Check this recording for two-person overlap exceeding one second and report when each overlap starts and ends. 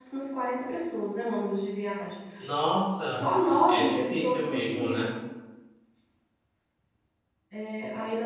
3.7-5.1

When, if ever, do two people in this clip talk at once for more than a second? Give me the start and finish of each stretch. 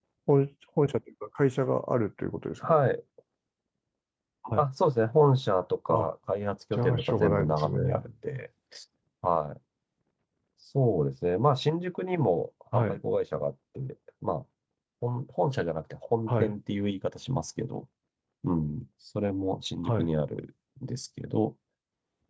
6.7-8.0

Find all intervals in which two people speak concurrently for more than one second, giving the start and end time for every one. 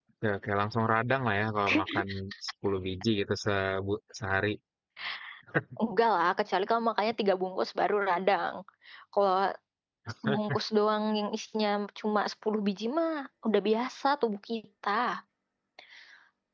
none

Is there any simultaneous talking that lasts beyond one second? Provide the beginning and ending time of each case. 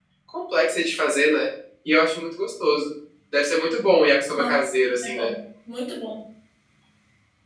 none

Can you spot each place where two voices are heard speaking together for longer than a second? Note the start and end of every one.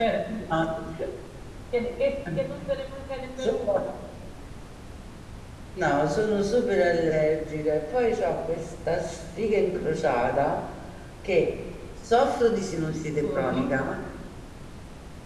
none

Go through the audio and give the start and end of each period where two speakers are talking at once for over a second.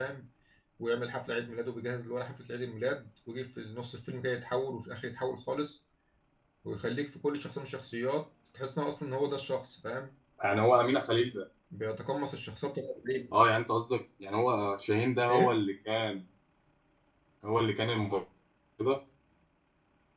none

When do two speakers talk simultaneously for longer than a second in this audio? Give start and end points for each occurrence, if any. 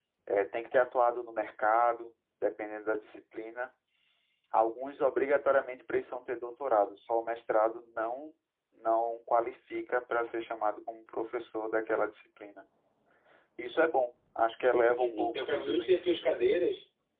14.8-16.3

